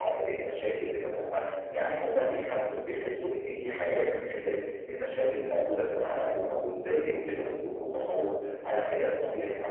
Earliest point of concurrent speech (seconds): none

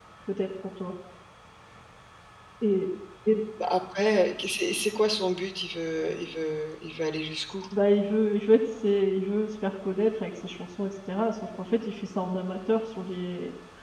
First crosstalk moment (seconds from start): none

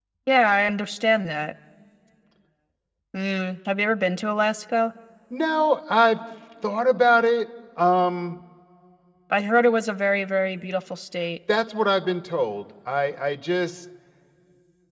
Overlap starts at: none

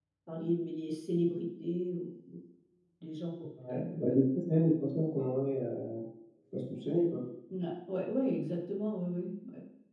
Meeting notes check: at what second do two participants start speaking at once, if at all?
none

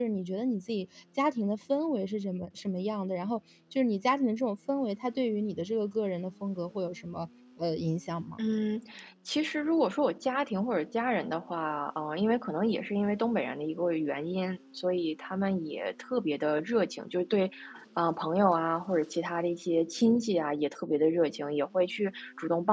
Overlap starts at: none

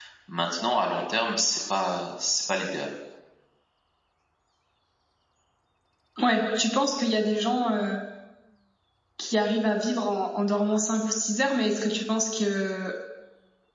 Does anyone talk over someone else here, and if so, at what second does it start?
none

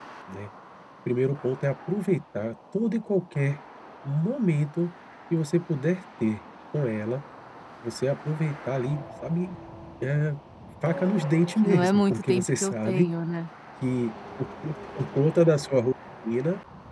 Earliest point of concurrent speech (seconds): 11.6 s

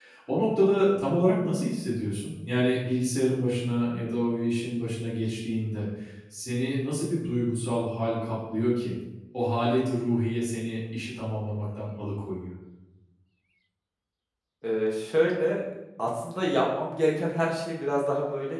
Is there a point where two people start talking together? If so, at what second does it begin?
none

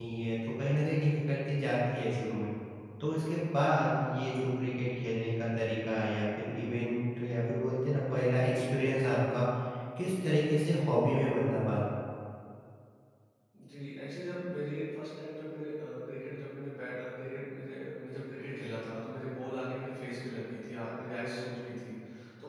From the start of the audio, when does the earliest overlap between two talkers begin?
none

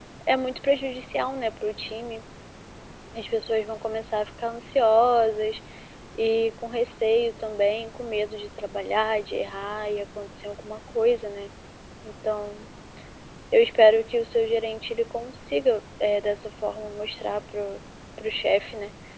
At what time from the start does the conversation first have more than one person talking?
none

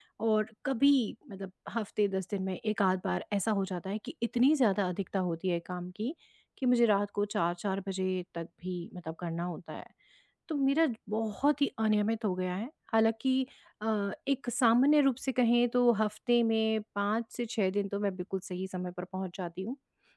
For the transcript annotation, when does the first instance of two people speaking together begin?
none

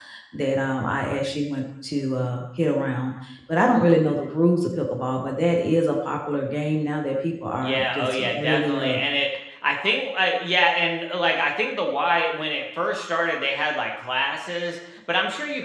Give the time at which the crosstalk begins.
7.6 s

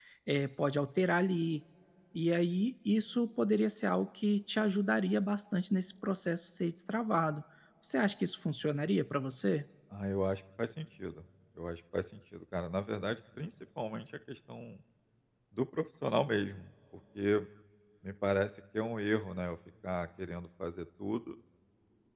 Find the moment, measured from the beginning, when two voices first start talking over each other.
none

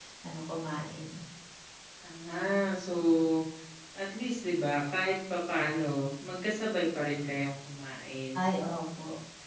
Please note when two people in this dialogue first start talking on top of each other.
none

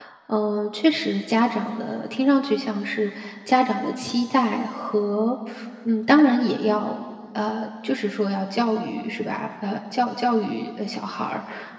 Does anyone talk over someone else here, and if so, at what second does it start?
none

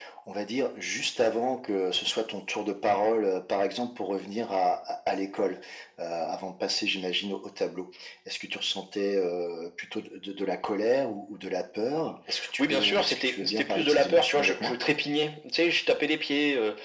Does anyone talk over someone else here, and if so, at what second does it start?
12.6 s

